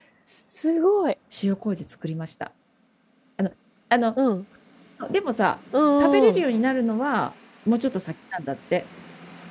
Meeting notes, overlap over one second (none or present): none